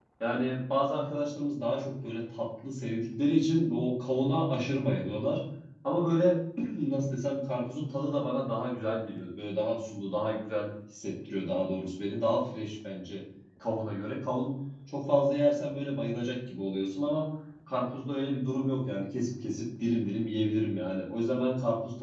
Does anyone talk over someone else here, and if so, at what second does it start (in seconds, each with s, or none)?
none